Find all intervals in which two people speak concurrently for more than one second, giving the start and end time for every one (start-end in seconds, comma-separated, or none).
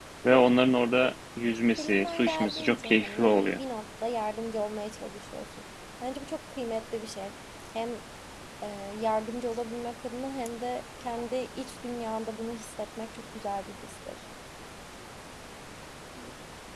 1.8-3.6